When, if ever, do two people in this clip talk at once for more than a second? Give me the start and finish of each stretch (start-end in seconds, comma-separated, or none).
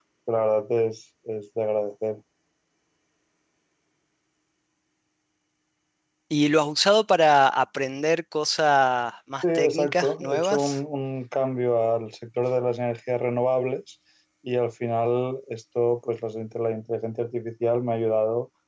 9.4-10.8